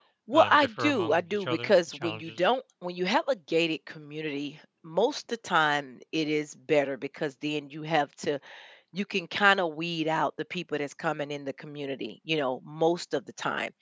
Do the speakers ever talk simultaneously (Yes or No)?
Yes